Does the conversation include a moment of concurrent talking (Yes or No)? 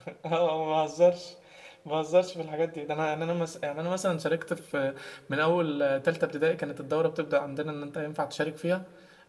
No